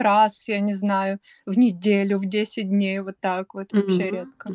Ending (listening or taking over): taking over